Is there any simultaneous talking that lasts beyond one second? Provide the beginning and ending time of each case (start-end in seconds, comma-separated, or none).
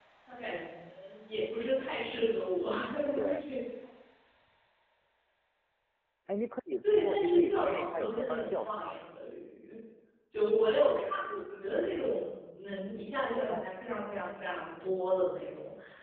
6.8-8.9